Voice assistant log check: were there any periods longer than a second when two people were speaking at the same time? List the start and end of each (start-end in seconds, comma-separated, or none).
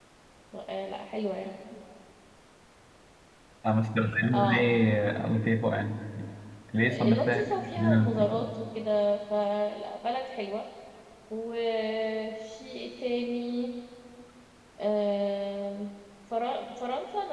7.1-8.4